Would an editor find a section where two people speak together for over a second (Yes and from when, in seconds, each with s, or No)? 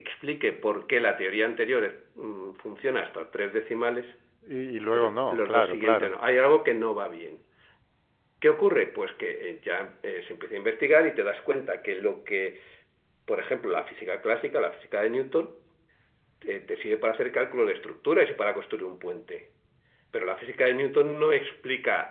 Yes, from 4.9 s